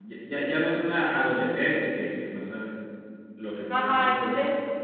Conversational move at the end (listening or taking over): taking over